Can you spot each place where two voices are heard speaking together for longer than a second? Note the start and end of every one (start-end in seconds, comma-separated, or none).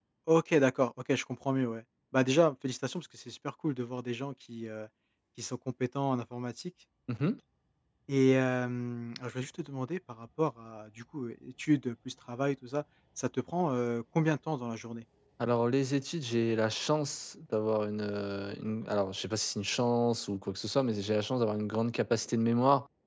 none